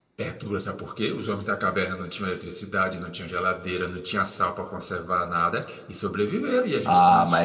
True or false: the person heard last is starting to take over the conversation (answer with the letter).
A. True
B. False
A